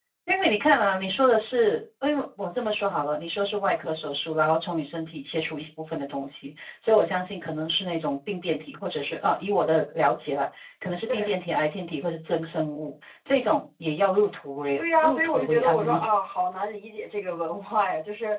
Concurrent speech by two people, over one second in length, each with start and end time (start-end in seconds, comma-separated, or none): 14.8-16.0